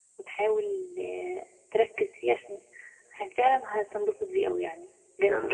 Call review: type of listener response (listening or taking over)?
taking over